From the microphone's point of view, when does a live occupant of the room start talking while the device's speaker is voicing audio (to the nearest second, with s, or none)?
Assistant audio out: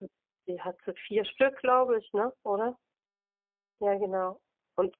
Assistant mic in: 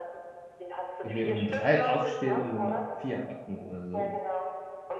1 s